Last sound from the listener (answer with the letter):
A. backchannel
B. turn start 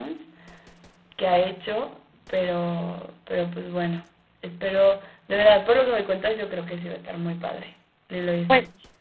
B